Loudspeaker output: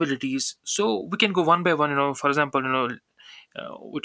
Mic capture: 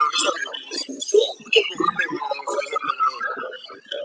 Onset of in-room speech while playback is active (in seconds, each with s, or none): none